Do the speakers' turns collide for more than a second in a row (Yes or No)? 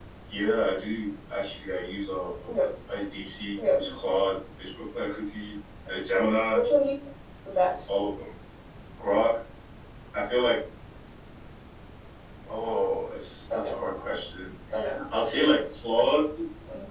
No